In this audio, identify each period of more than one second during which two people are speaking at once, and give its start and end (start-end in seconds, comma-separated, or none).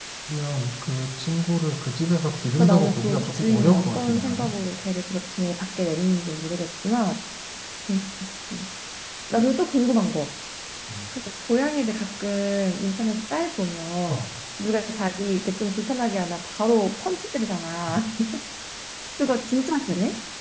2.6-4.5